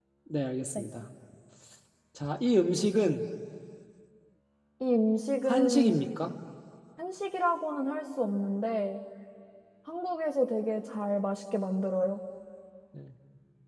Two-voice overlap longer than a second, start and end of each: none

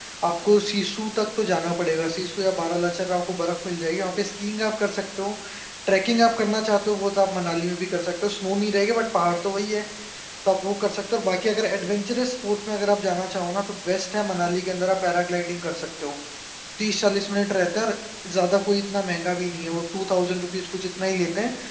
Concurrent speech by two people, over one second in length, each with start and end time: none

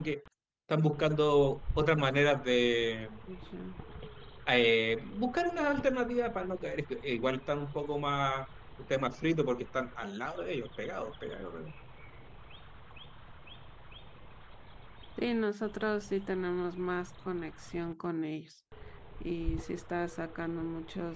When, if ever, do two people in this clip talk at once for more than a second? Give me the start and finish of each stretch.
none

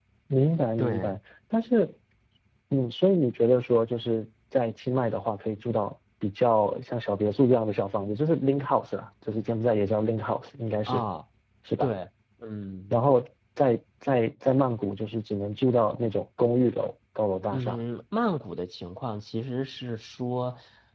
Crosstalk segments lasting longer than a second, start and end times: none

